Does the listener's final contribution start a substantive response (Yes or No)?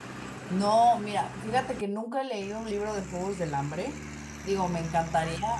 No